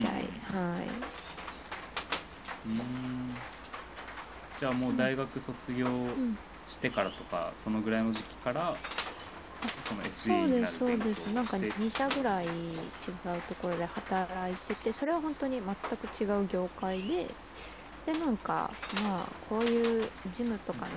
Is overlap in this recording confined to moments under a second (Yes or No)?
No